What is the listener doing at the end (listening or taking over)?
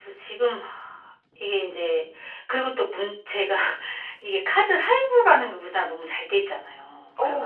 taking over